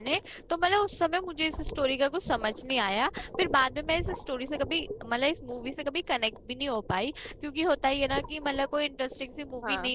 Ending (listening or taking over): listening